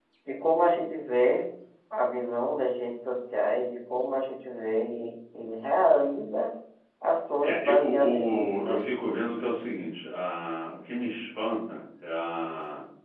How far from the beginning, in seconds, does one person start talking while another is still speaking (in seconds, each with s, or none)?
7.4 s